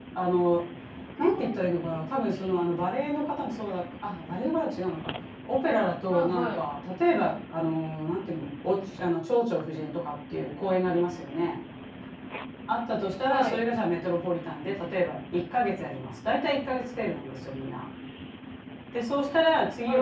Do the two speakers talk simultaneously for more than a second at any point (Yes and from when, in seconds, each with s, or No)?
No